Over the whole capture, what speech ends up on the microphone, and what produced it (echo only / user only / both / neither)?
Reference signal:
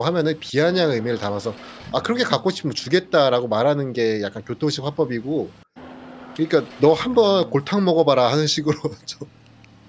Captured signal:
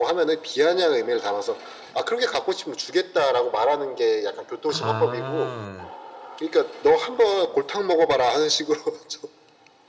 both